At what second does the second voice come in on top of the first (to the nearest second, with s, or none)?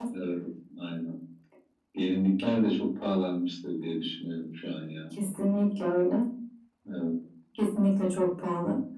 none